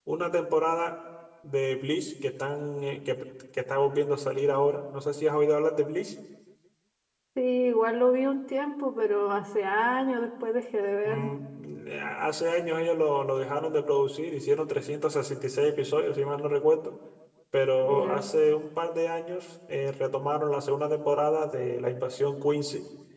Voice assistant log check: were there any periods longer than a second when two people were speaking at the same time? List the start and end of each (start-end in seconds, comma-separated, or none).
none